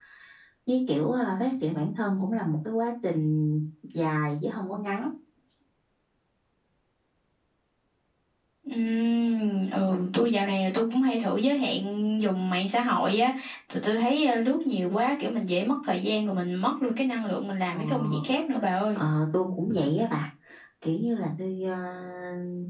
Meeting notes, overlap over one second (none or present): none